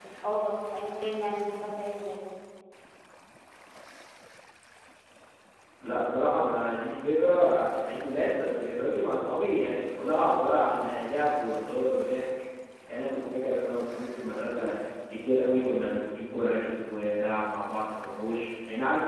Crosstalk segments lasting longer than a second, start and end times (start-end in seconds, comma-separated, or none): none